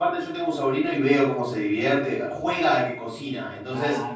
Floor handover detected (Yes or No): No